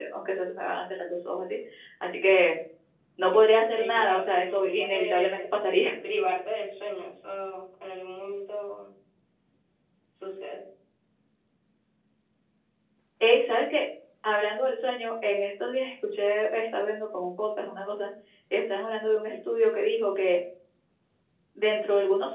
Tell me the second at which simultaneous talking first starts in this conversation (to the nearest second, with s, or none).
4 s